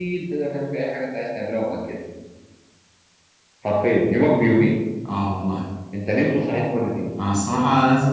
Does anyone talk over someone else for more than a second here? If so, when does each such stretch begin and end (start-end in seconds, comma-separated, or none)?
none